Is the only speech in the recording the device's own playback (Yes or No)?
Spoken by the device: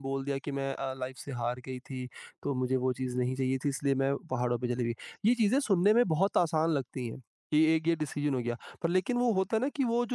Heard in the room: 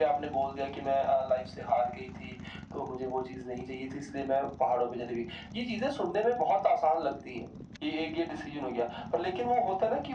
Yes